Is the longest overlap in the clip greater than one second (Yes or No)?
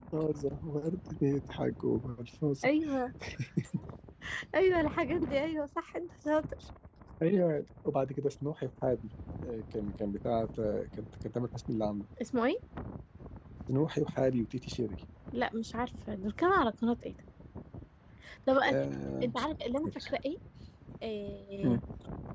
No